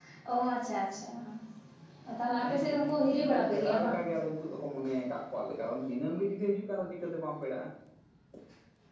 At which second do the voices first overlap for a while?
2.4 s

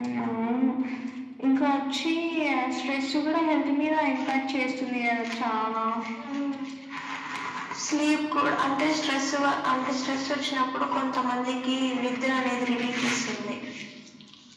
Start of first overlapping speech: none

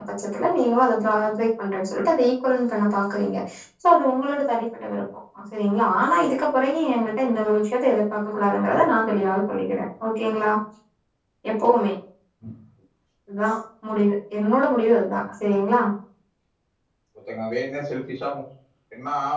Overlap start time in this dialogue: none

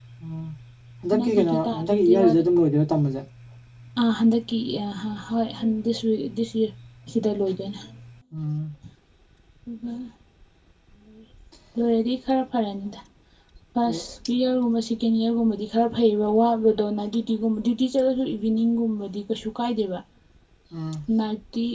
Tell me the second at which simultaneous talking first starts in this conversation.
1.2 s

